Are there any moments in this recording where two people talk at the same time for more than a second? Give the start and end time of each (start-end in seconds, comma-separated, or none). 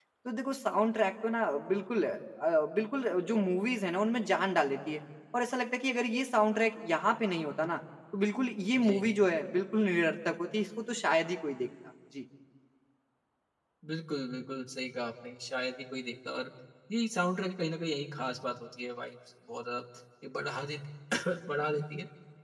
none